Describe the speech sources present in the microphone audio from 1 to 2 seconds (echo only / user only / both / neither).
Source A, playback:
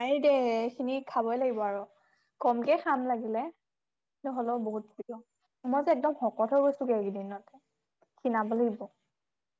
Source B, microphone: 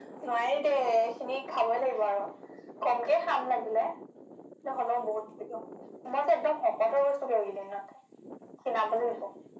echo only